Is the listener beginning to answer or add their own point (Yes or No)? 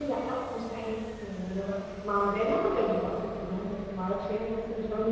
No